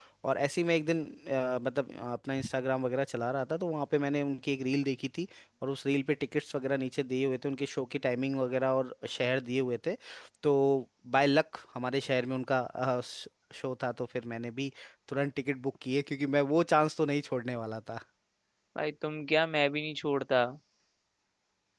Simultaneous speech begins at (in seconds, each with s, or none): none